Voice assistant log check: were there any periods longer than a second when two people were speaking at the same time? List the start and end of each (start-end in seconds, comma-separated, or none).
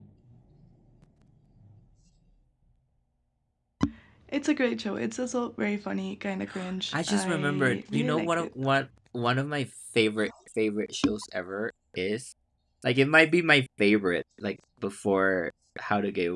6.9-8.5